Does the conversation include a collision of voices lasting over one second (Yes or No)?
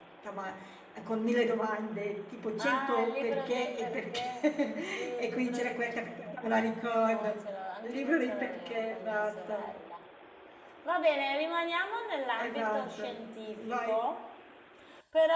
Yes